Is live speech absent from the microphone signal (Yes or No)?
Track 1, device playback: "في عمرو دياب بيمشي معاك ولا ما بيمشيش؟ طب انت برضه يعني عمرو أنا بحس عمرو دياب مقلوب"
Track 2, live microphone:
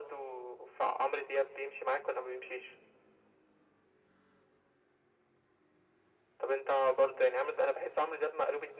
Yes